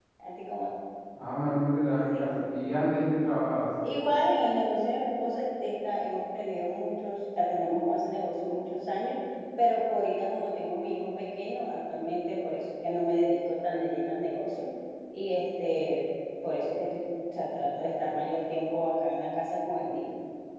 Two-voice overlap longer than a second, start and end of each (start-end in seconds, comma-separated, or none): none